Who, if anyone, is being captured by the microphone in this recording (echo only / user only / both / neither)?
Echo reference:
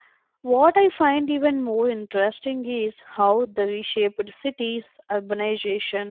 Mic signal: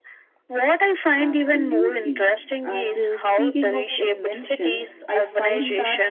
both